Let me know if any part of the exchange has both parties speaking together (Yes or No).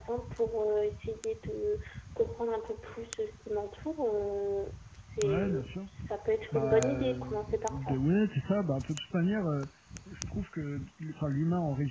Yes